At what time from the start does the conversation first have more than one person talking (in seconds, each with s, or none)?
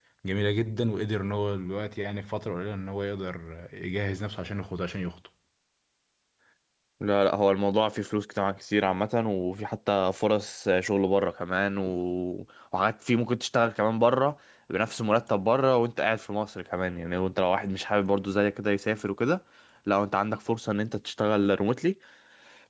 none